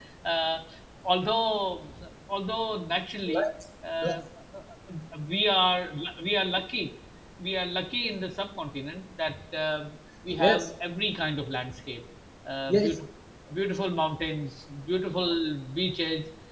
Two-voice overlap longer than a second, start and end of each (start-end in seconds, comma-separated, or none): none